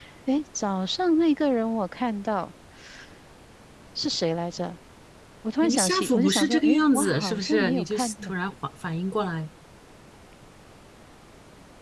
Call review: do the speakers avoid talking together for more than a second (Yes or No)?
No